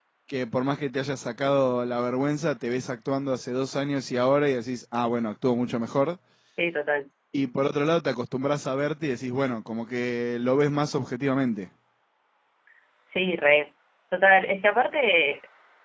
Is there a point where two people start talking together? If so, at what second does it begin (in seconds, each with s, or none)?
none